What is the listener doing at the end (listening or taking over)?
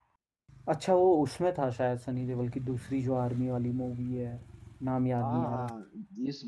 taking over